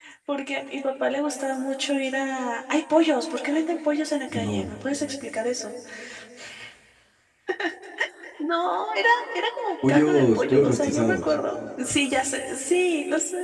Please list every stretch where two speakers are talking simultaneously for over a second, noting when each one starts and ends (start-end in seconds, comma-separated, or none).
9.9-11.3